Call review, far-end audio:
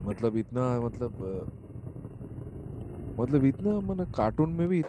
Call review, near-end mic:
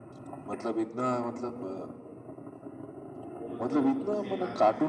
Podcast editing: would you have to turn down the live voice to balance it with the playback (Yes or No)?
No